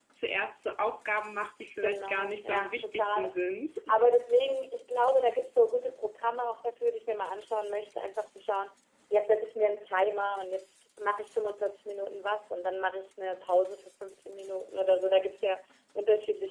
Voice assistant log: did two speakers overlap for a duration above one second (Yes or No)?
Yes